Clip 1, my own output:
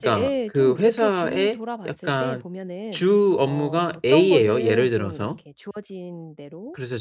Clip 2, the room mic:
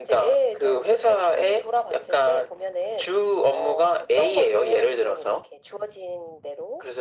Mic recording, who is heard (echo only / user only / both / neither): echo only